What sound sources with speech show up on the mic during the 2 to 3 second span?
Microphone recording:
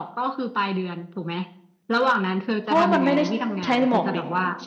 both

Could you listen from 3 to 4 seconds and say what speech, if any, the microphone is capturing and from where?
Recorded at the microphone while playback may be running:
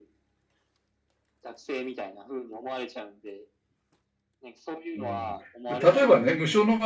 echo only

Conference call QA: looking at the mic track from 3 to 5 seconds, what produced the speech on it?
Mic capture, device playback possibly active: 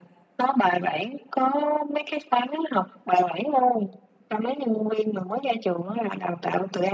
echo only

